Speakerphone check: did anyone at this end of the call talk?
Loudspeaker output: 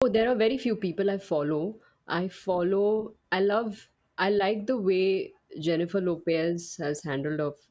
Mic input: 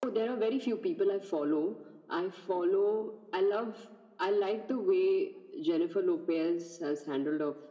No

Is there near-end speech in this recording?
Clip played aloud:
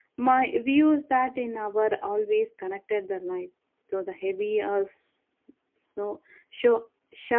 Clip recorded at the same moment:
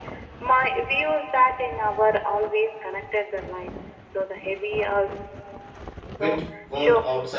Yes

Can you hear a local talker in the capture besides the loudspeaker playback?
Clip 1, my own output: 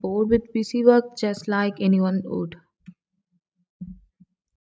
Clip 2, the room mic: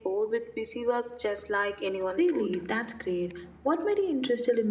Yes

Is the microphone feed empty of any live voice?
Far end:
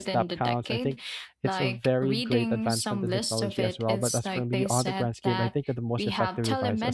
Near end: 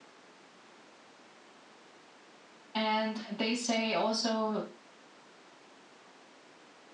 No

